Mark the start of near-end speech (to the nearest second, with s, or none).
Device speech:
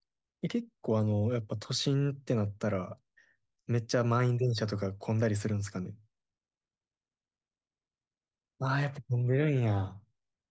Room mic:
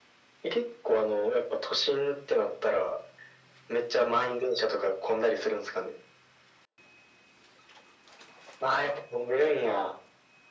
none